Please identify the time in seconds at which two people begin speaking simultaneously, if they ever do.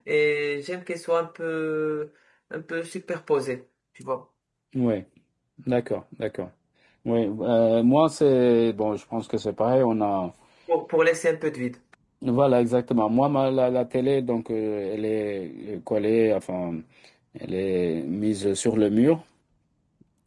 none

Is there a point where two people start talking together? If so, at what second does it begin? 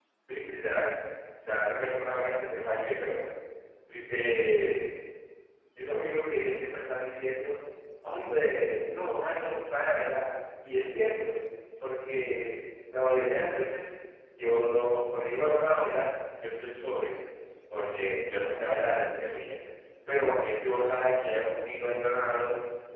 none

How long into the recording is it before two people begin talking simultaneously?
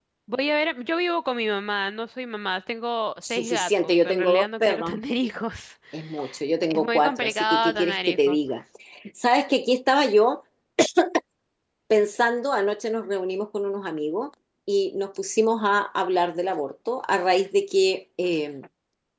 3.3 s

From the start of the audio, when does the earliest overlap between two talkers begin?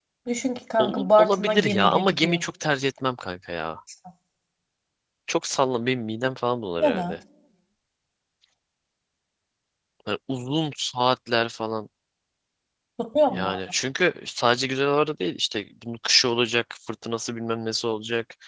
0.8 s

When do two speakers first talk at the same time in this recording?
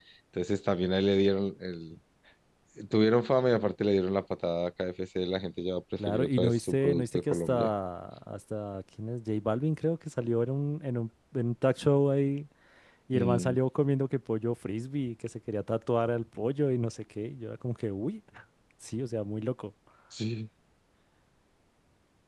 6.0 s

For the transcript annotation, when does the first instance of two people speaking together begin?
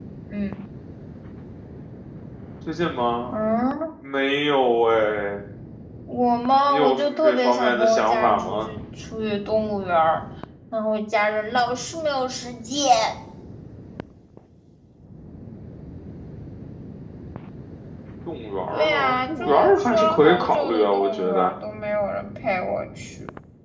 6.7 s

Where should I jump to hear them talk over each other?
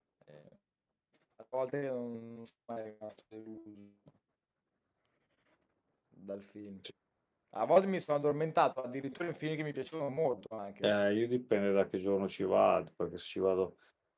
none

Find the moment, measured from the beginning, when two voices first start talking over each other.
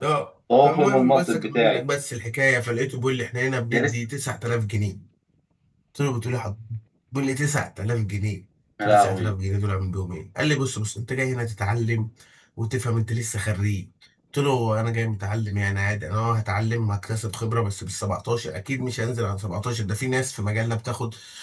0.6 s

